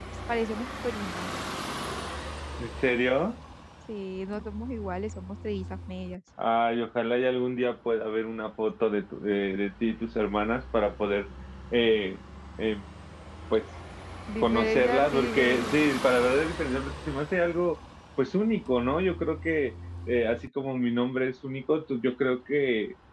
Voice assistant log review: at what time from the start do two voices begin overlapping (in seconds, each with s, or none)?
14.4 s